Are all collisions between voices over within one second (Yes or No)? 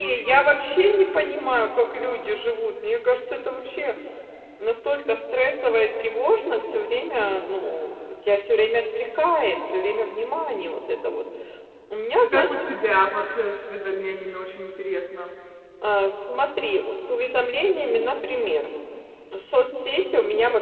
Yes